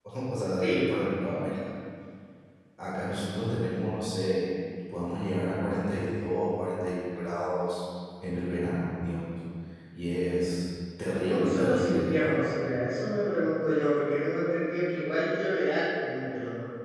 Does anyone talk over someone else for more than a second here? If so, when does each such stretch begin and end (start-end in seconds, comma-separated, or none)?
11.1-12.4